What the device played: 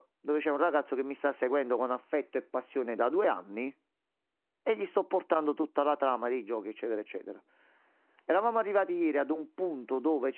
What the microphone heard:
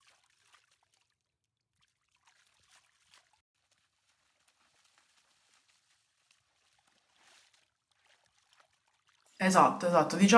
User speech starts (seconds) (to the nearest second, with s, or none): 9 s